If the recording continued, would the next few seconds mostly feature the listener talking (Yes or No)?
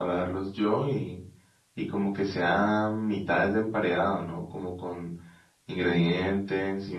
No